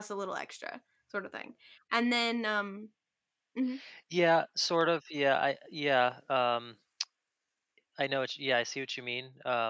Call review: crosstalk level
none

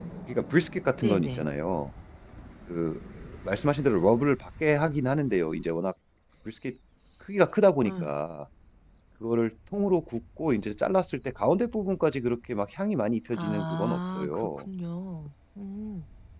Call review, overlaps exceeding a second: present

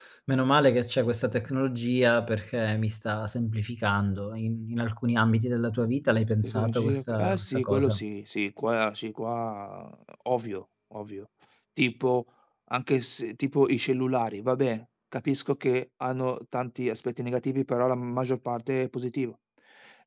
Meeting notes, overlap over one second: present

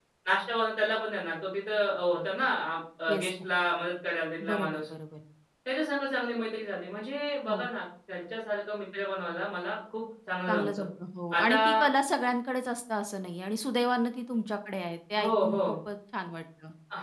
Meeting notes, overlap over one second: none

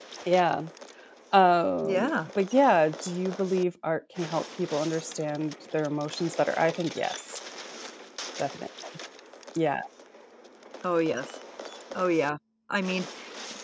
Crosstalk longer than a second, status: none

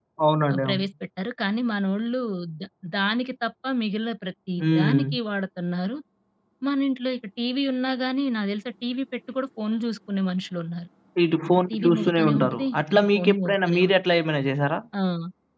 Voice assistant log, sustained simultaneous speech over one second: present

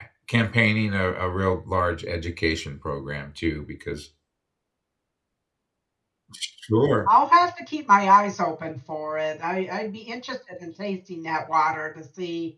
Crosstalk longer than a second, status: none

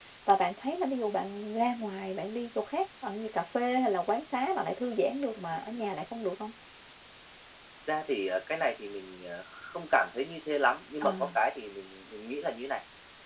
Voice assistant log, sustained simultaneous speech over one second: none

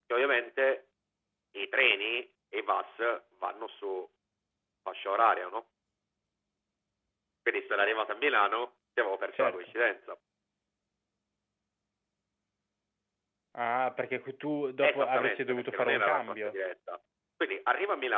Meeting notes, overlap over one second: present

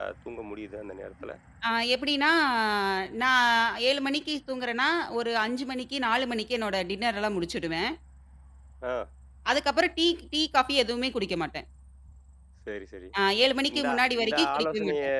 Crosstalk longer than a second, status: present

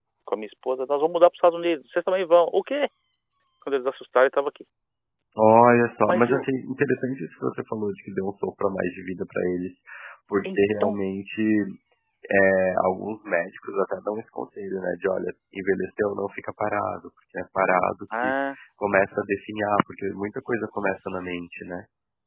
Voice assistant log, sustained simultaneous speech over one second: none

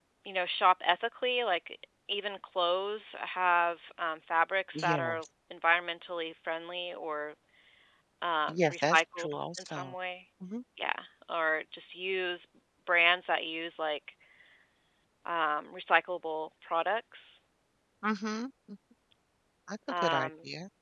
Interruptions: present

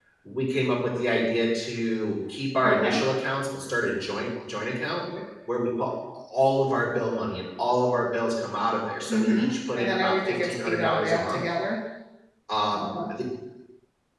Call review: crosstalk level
present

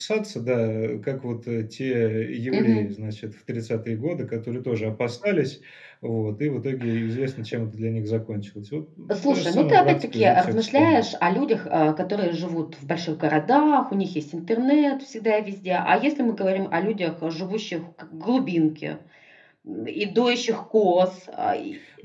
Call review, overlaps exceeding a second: present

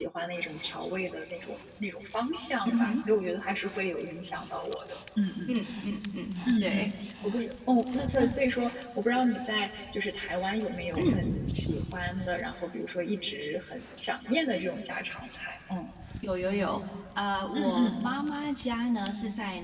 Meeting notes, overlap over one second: none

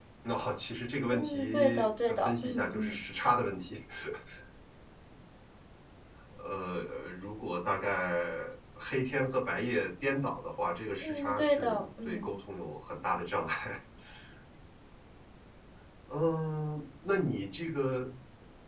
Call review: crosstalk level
present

